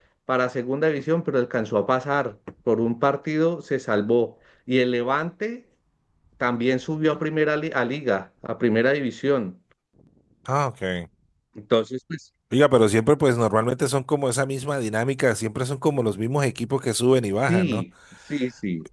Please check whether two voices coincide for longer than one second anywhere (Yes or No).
No